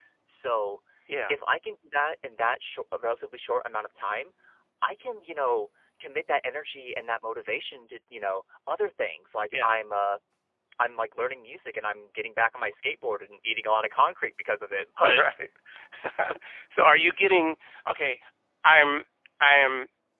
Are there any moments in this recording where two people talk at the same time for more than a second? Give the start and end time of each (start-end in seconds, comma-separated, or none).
none